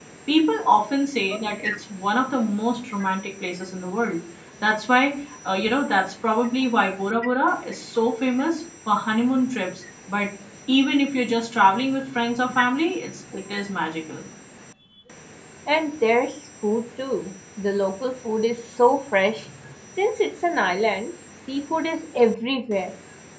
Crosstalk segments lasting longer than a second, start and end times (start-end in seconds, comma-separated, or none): none